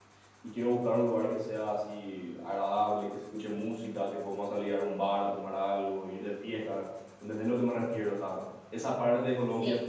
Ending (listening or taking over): listening